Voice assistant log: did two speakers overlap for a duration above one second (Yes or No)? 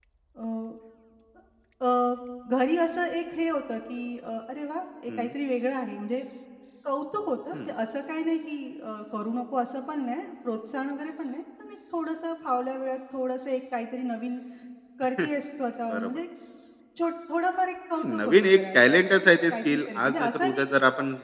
Yes